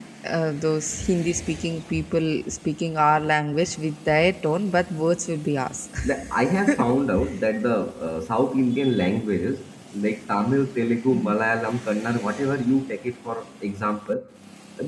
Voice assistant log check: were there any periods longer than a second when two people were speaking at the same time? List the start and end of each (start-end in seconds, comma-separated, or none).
none